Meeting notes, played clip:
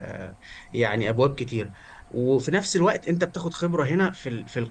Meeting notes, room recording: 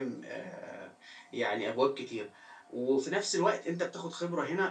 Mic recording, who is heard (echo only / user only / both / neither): echo only